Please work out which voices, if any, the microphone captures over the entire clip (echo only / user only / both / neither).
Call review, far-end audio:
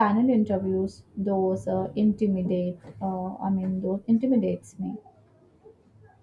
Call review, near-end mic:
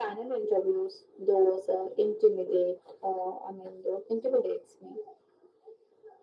echo only